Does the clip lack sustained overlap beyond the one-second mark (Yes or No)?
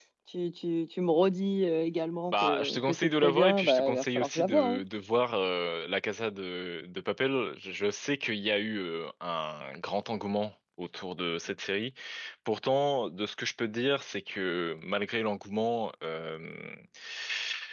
No